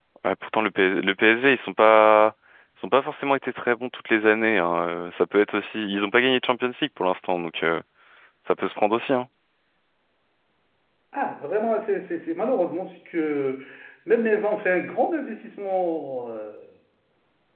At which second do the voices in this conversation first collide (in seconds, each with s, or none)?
none